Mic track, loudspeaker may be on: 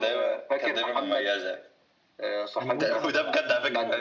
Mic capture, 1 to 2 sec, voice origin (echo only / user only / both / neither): echo only